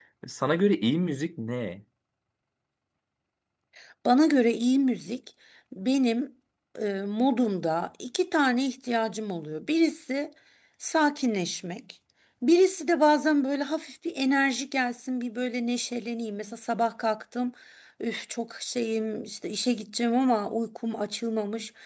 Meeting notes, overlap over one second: none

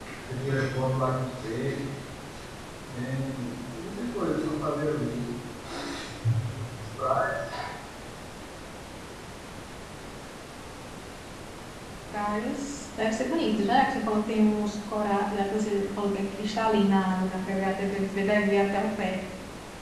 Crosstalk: none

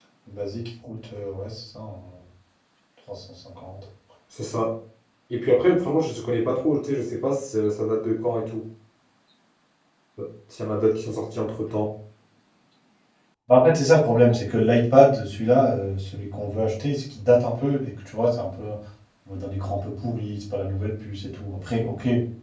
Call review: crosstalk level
none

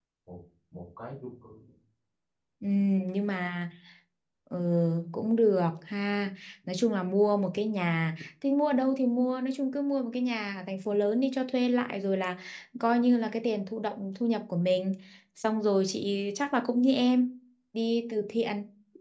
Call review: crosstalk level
none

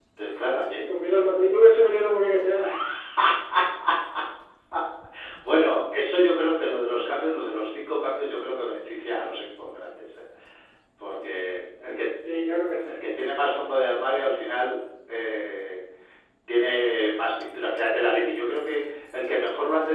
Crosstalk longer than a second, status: none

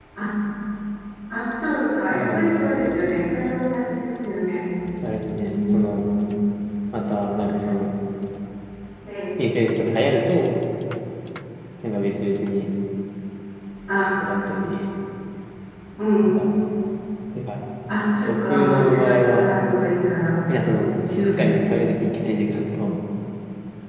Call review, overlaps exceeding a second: present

